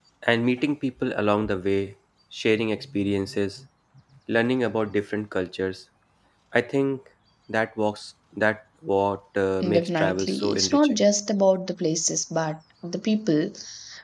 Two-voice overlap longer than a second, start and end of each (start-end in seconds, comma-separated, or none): 9.6-11.0